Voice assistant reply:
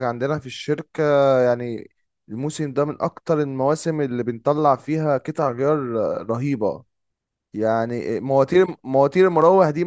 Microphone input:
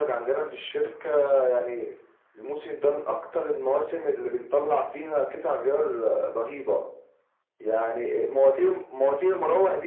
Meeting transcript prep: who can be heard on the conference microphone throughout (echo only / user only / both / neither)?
echo only